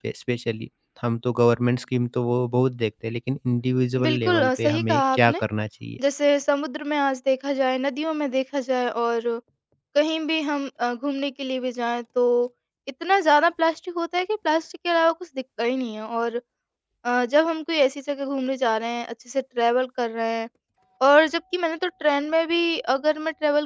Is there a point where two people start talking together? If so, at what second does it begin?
4.0 s

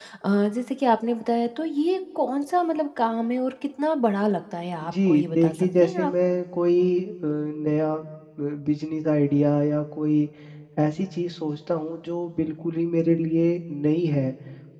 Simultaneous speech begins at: 4.8 s

